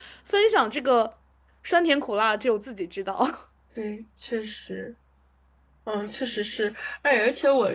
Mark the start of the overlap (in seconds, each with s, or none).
none